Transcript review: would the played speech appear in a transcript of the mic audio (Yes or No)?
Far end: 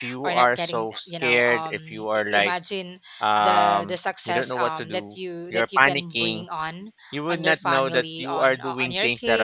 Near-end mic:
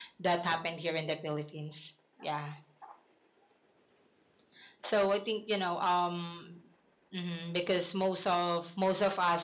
No